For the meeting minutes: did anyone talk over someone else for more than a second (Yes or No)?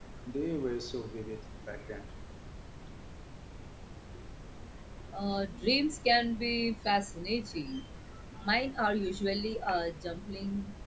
No